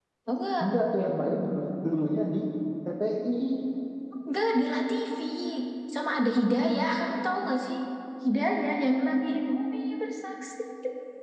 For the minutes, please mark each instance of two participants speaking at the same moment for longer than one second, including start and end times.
none

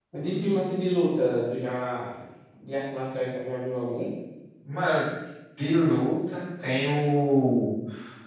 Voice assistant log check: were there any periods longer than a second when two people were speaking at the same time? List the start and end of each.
none

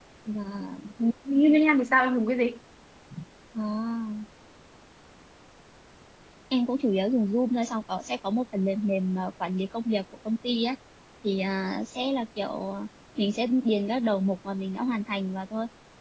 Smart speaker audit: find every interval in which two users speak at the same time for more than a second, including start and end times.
none

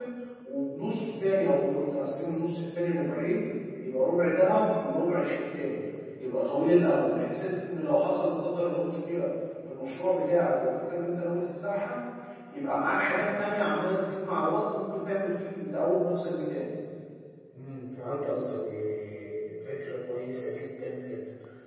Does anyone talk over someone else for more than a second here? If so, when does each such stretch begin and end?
none

